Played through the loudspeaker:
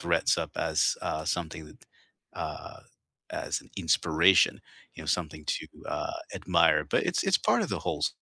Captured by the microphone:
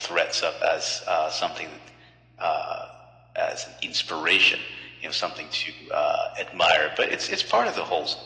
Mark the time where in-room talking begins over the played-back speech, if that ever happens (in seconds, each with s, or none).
none